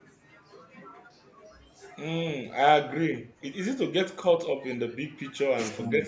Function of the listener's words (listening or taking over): listening